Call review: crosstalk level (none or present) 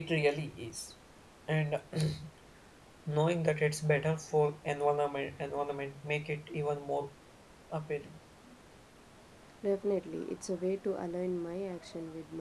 none